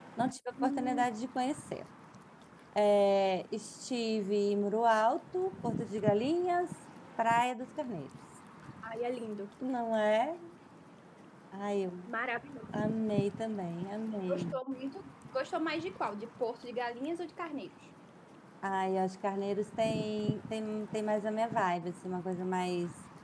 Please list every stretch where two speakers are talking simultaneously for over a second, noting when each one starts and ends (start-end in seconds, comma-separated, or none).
none